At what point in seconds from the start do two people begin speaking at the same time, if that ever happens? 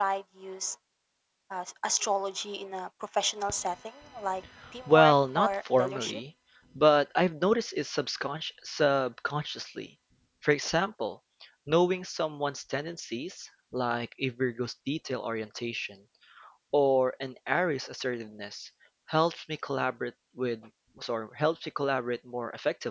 4.9 s

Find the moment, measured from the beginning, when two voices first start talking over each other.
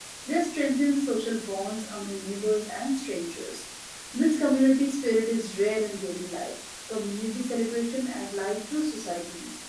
none

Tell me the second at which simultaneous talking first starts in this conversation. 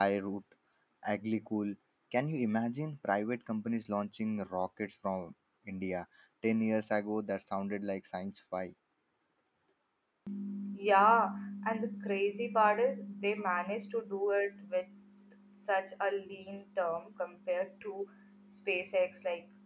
none

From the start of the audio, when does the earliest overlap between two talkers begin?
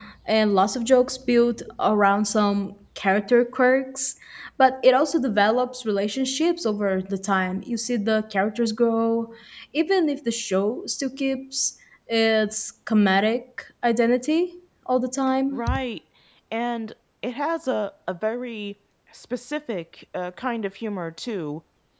none

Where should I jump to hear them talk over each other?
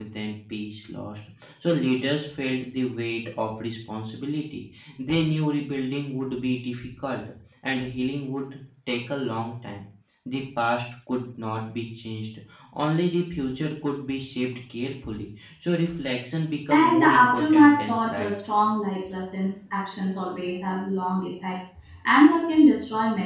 16.7 s

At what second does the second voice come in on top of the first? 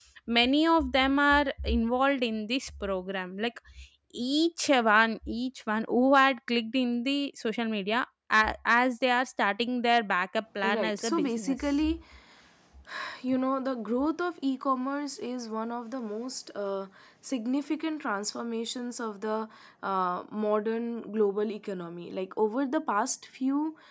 10.6 s

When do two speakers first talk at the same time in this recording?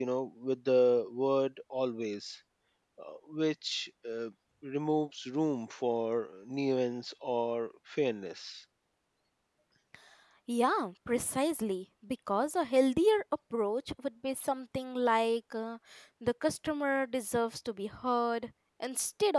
none

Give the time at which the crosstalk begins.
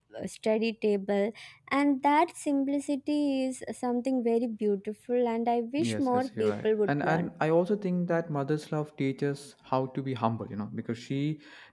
5.8 s

